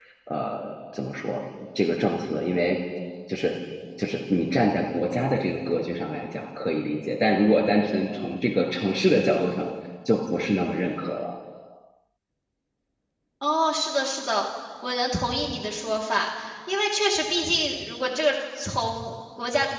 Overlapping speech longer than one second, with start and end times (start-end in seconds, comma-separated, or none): none